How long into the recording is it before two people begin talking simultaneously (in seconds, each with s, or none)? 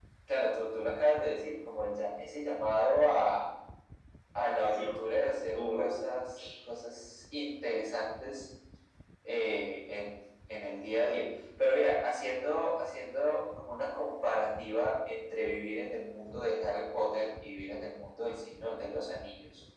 4.4 s